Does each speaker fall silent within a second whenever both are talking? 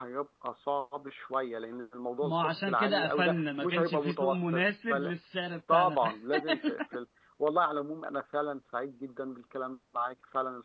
No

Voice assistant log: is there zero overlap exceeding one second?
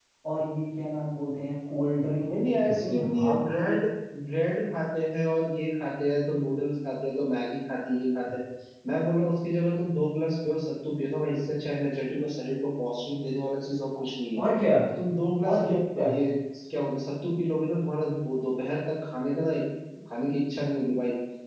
No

